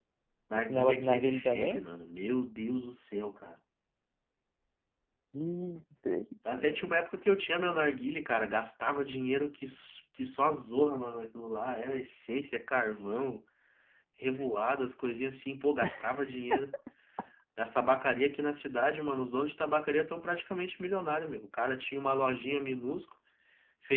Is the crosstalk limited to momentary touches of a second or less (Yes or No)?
No